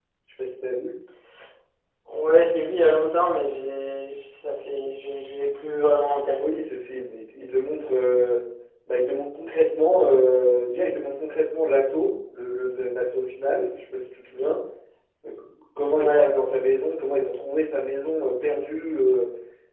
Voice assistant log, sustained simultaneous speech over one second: none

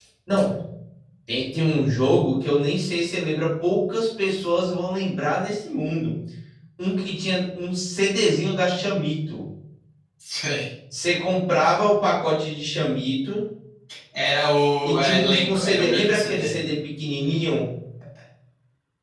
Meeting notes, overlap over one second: present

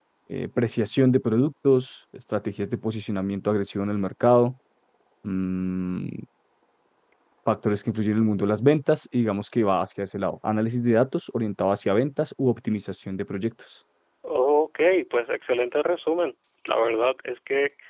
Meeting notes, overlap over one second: none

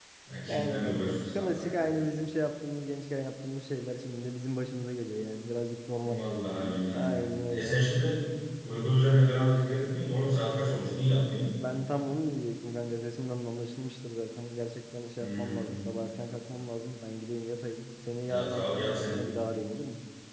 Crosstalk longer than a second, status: present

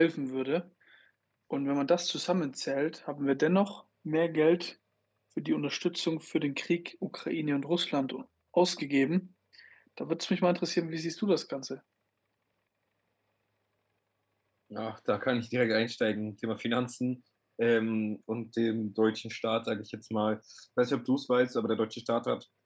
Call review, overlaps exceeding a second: none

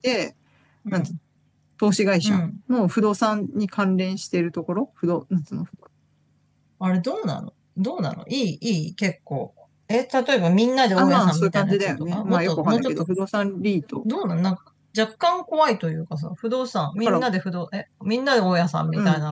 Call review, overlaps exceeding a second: present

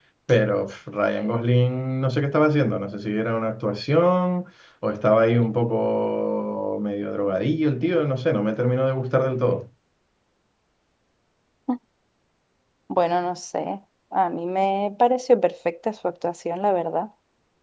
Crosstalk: none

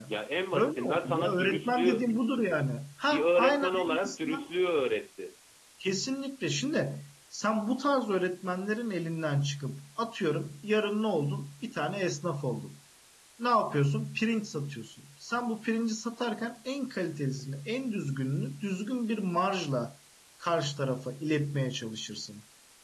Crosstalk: present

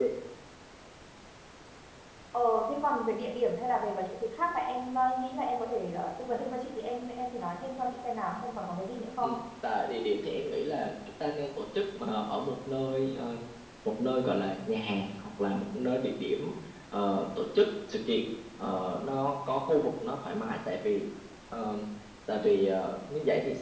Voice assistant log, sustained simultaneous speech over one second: none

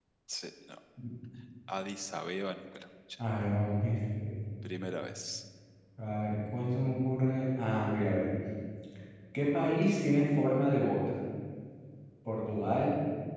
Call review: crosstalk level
none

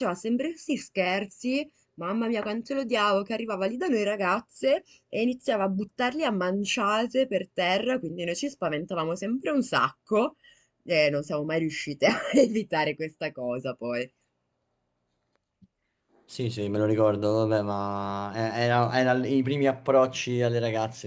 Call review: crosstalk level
none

